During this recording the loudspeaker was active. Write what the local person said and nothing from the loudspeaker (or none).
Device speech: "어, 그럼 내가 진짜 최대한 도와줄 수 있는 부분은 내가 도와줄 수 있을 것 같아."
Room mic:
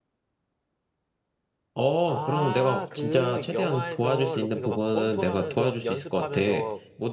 아, 그 영화에서 로키가 막 권투하면서 연습하면서